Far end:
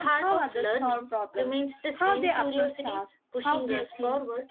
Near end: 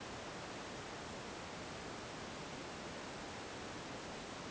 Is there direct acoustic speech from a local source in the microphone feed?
No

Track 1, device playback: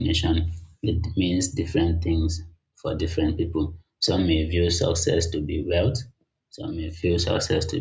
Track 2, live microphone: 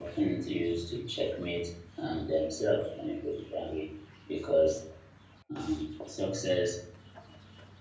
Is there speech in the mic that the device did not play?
Yes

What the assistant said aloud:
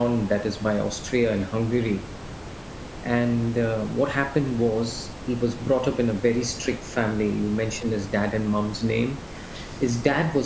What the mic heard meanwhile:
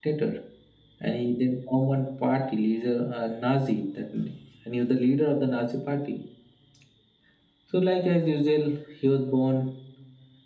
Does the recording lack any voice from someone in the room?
No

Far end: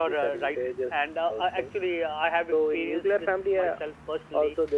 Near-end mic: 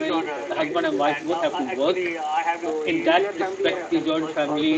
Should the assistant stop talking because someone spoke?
Yes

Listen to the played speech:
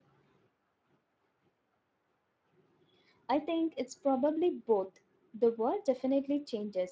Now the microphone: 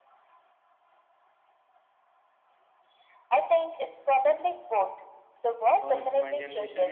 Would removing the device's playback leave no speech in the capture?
No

